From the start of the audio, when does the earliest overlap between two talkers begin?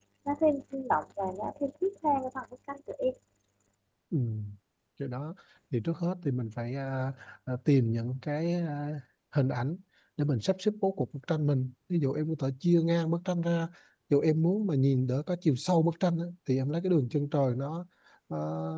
none

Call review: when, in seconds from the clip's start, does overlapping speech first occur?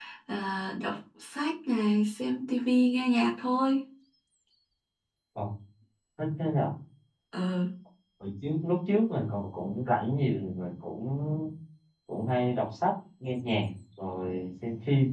none

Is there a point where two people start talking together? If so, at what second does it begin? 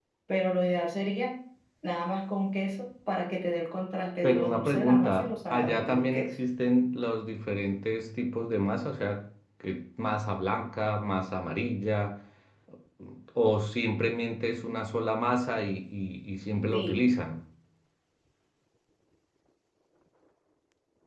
4 s

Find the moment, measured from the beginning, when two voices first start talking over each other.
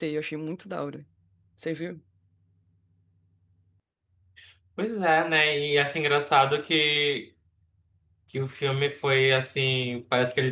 none

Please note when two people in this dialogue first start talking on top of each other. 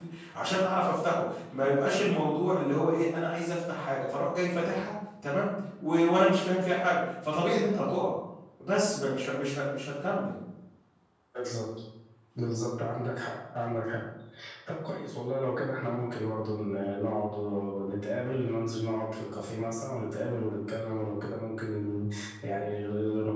none

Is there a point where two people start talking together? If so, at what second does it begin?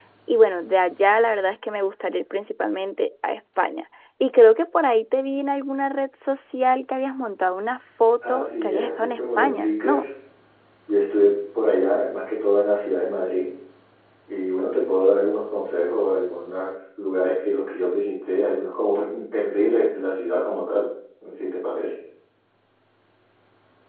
8 s

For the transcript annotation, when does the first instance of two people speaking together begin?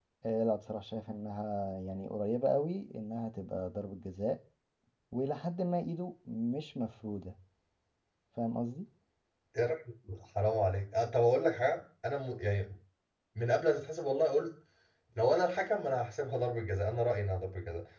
none

